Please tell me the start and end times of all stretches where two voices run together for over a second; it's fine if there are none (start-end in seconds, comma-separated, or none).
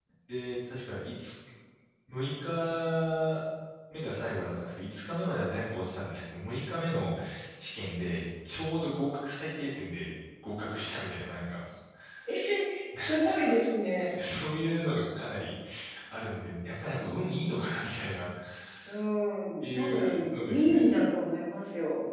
19.6-20.9